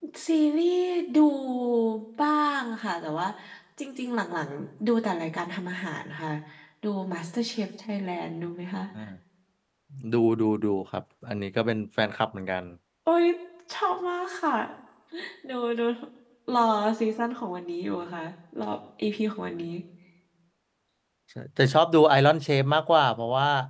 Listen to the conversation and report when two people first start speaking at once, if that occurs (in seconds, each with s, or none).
none